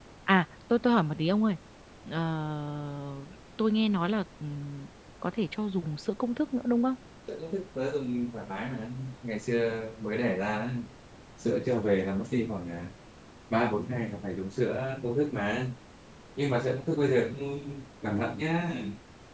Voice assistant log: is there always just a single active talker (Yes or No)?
Yes